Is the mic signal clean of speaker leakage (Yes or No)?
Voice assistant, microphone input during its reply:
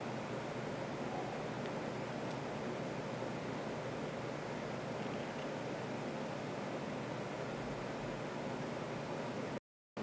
Yes